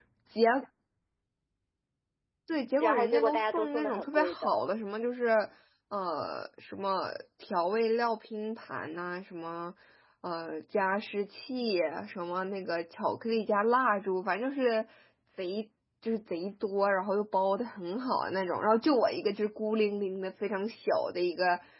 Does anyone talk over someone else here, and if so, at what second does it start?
2.8 s

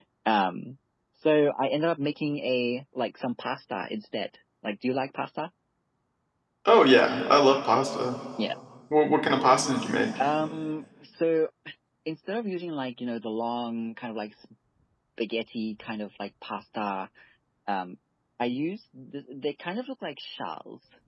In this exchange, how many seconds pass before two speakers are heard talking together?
none

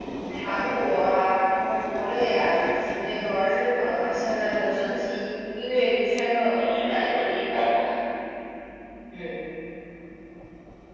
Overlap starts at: 6.4 s

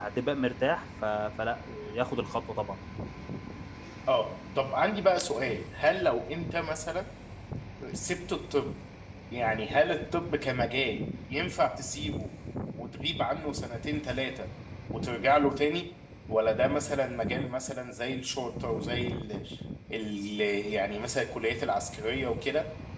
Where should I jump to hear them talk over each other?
none

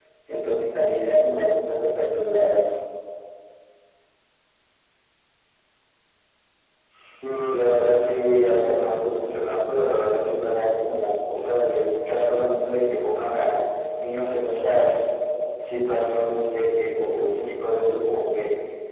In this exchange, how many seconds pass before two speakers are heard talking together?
none

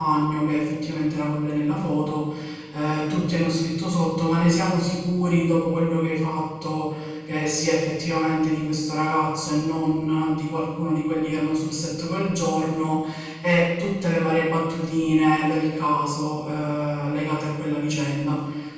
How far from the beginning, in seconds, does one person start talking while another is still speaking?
none

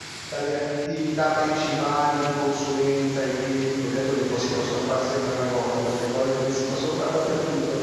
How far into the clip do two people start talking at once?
none

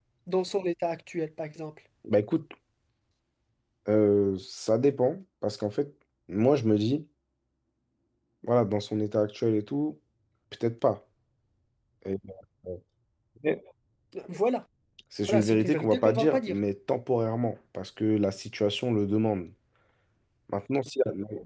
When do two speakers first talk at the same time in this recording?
15.2 s

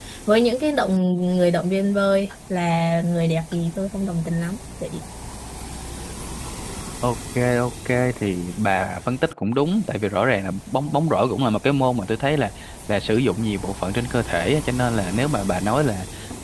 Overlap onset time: none

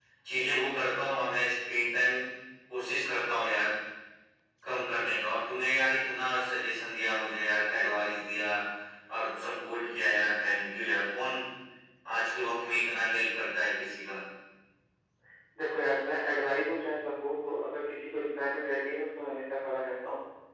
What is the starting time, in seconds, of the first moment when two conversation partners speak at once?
none

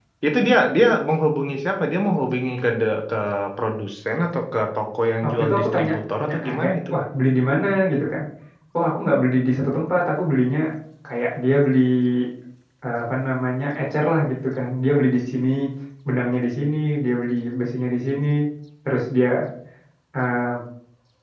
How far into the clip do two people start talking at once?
5.2 s

